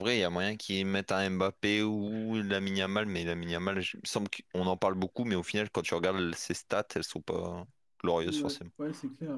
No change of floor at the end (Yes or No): No